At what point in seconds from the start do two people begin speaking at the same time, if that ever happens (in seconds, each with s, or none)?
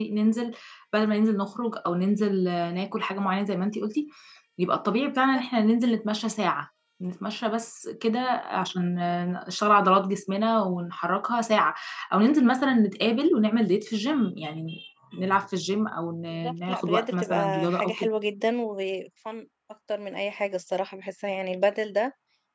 16.3 s